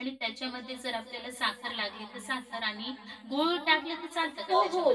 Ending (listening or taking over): taking over